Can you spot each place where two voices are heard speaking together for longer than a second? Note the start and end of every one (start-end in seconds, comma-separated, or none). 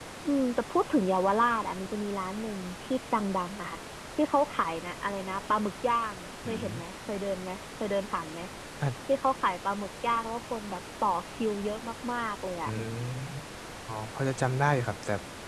none